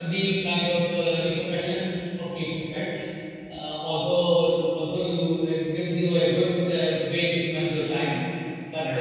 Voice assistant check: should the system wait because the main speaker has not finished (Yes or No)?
Yes